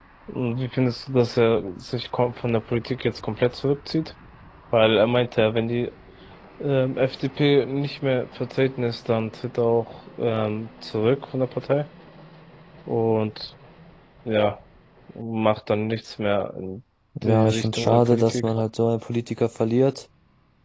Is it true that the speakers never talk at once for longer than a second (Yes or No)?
No